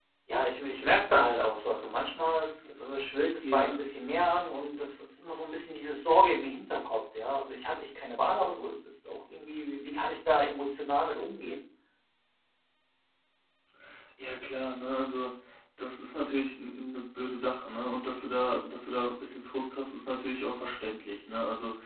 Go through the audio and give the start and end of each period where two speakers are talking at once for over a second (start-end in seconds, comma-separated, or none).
none